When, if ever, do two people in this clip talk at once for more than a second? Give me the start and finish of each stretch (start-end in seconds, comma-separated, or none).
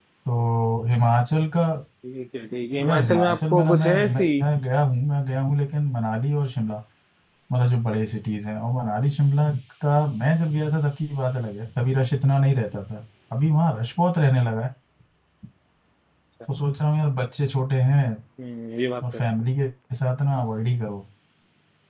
2.8-4.2